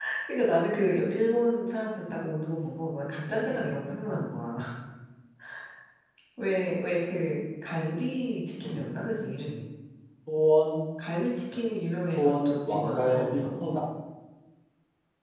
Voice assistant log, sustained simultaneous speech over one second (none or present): present